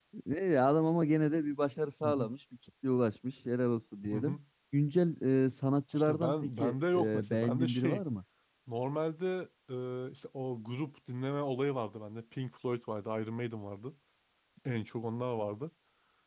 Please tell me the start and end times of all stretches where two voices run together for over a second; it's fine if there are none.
6.0-8.0

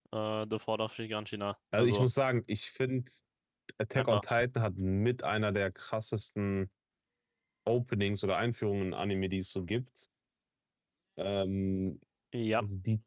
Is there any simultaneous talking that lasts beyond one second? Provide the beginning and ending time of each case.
none

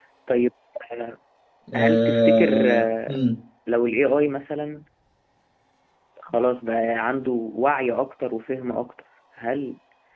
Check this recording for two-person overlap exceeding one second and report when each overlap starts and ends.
1.8-3.2

